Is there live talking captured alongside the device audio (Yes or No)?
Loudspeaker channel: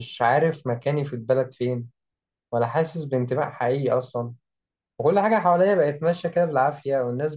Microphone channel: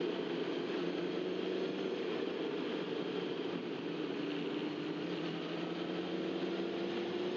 No